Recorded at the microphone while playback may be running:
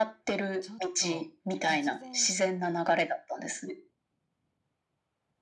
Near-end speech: present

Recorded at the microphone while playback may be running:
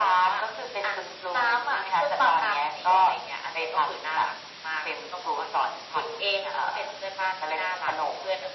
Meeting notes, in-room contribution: none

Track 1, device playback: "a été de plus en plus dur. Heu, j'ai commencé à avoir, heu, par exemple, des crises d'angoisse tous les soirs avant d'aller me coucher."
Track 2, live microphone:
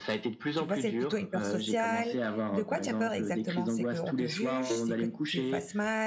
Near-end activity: present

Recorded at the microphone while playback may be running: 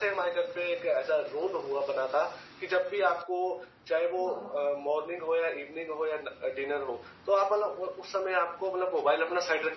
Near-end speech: present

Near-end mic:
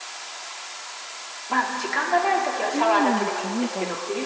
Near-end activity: present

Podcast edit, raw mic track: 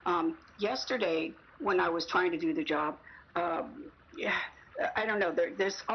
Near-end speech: none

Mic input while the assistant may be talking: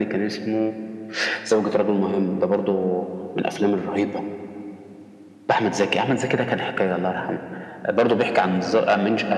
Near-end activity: none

